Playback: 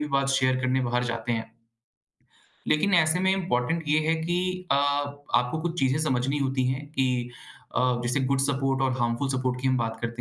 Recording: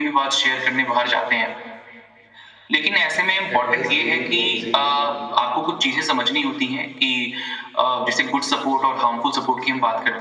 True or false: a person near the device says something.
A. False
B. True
B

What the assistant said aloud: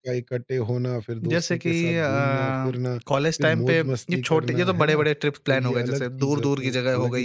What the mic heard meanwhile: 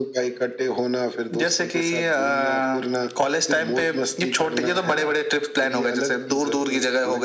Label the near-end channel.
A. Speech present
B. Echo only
B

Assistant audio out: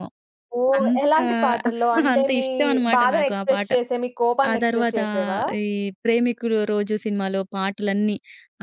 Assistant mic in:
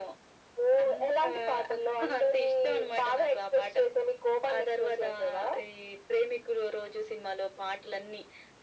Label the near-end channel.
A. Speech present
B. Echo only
B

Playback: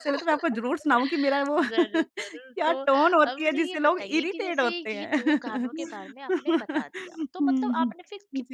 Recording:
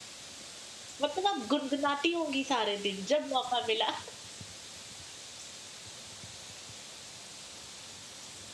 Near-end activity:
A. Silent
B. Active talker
B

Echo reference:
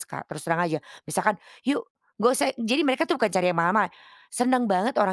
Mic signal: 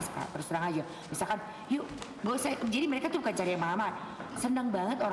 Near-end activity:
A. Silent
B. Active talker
A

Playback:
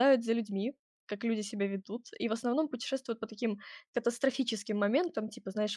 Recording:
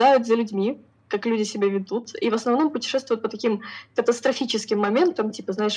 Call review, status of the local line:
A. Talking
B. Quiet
B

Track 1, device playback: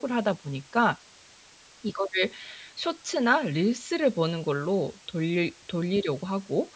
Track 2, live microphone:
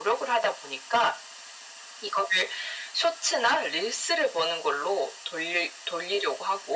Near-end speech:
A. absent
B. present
A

